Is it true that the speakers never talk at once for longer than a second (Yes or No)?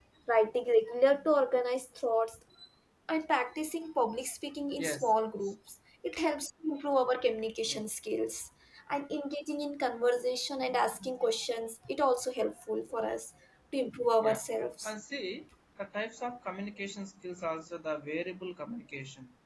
Yes